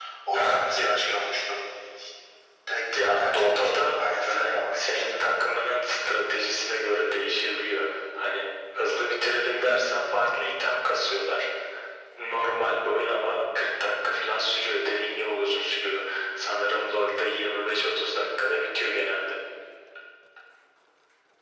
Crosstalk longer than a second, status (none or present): present